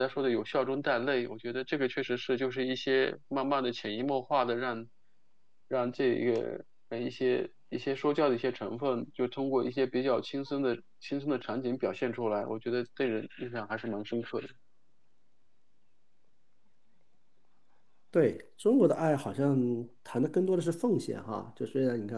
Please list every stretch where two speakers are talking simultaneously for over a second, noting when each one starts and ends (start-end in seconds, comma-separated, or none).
none